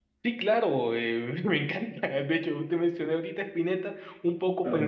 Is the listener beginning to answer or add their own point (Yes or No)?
No